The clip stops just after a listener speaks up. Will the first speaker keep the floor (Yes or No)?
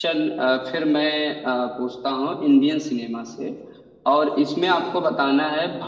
Yes